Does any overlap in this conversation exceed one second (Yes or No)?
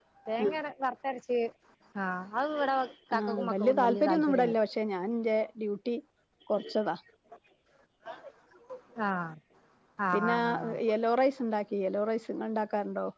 Yes